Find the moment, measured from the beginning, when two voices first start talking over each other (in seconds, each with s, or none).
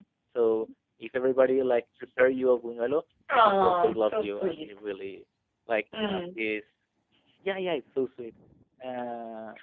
3.3 s